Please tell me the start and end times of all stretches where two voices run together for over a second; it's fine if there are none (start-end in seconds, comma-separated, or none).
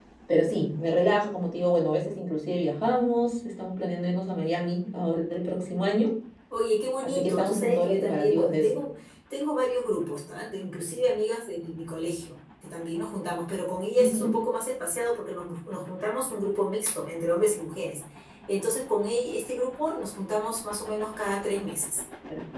7.0-8.7